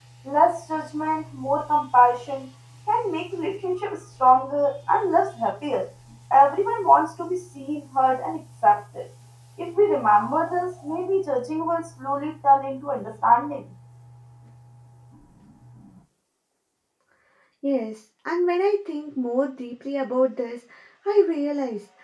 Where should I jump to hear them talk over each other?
none

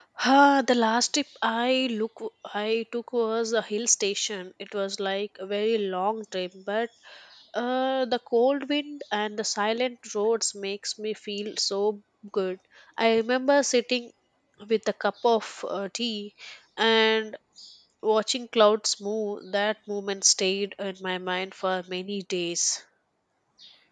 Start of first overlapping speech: none

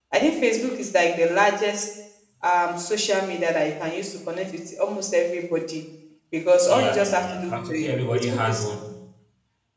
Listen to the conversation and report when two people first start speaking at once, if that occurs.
6.7 s

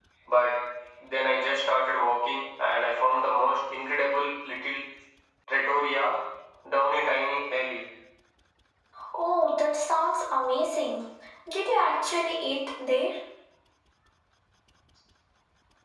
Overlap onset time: none

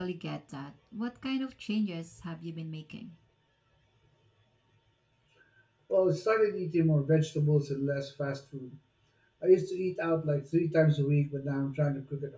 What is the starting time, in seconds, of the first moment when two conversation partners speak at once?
none

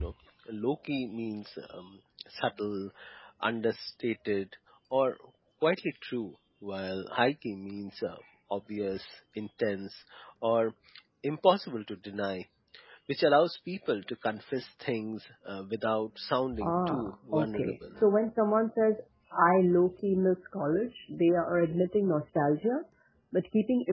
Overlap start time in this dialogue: 16.5 s

